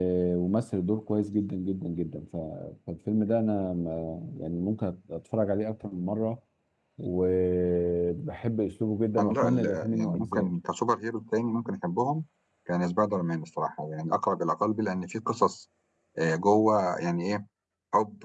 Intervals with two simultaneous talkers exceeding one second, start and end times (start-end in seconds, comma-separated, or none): 9.2-10.5